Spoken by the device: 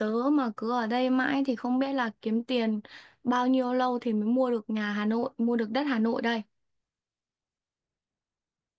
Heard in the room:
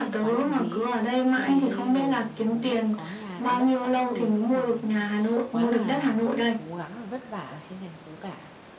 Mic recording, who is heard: both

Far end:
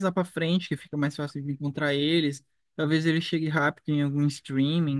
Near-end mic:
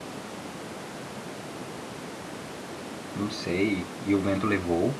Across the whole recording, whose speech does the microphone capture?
user only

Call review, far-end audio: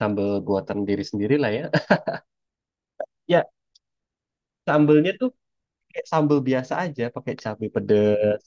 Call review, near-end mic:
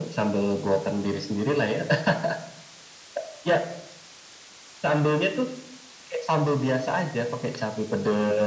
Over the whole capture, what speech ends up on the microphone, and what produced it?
echo only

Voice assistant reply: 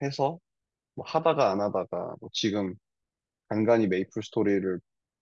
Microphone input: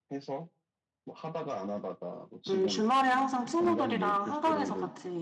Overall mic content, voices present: both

